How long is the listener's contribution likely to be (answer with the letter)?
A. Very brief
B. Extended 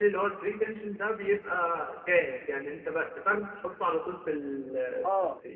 B